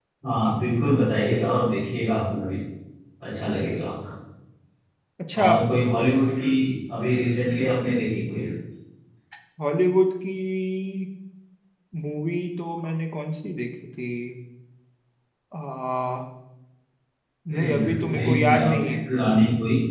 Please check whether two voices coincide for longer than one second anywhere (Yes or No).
Yes